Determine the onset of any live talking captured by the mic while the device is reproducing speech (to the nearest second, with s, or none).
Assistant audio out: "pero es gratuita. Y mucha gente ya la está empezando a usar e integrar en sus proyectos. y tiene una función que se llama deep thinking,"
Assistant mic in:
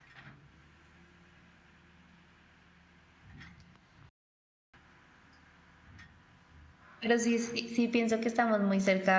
7 s